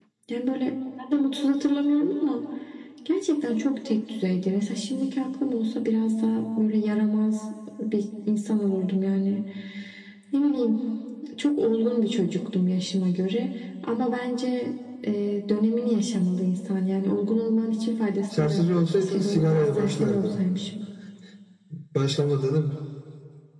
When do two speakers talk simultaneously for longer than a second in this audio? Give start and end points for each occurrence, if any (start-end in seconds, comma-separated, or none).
18.4-20.3